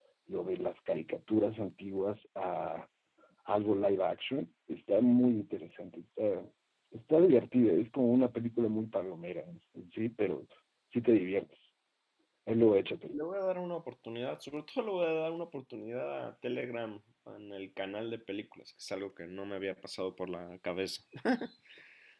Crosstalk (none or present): none